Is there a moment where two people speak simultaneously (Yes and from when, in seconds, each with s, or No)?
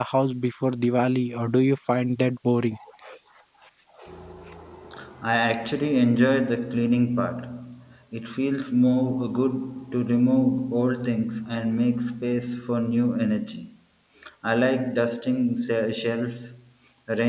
No